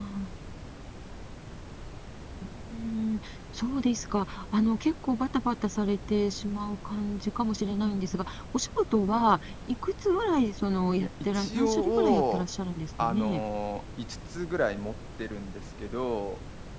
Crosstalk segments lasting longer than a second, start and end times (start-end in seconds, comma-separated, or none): 11.0-12.5